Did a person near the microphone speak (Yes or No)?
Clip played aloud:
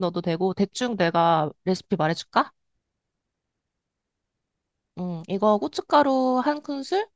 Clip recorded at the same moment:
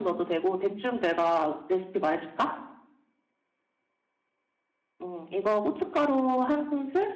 No